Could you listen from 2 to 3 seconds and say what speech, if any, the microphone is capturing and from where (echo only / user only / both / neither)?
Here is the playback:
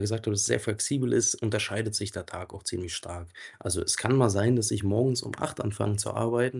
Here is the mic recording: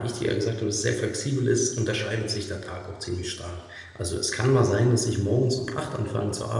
echo only